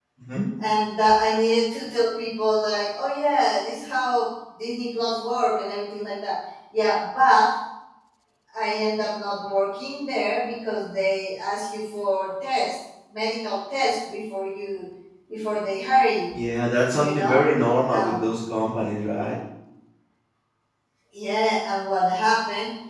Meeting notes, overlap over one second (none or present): none